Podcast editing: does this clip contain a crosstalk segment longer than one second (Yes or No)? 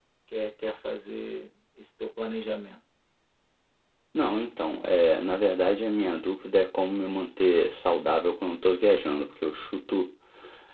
No